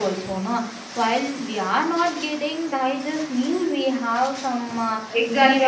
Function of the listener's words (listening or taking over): taking over